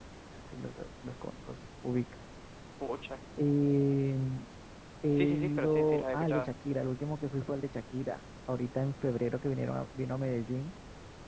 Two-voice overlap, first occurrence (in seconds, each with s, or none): 5.2 s